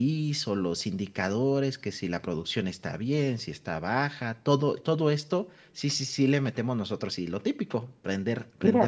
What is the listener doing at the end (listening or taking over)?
taking over